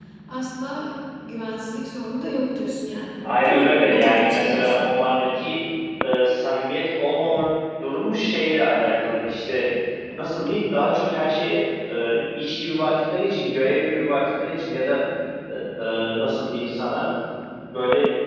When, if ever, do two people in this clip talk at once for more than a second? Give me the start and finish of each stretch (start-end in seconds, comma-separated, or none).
3.2-4.9